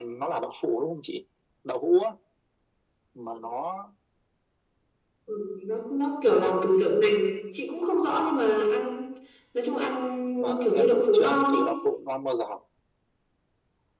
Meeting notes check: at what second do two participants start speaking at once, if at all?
10 s

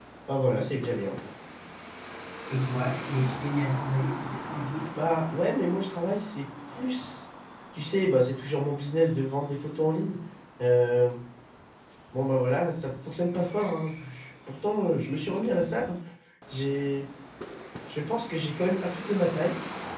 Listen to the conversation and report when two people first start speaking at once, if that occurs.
none

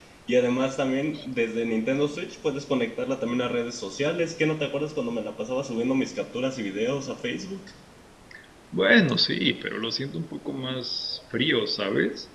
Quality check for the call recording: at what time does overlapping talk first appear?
none

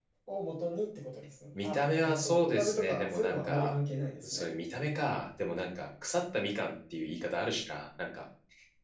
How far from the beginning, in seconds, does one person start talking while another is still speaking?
2 s

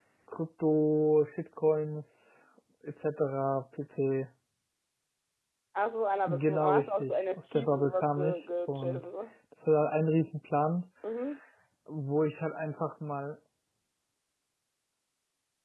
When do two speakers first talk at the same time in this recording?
6 s

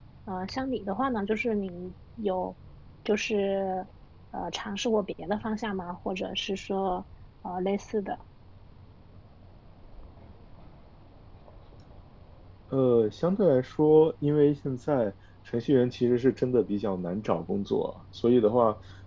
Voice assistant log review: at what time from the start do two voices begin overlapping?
none

